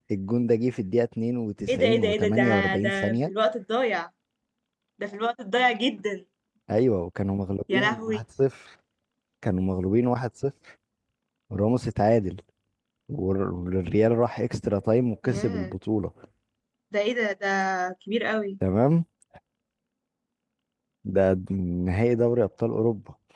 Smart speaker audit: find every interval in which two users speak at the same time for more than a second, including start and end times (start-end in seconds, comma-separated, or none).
1.7-3.3